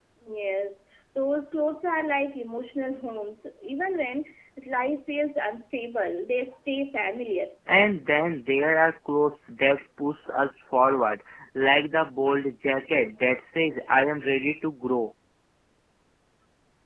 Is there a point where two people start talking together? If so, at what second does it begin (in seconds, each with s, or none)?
none